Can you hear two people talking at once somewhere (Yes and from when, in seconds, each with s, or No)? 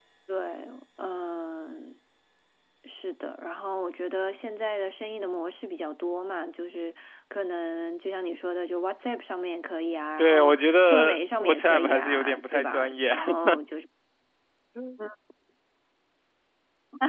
Yes, from 10.2 s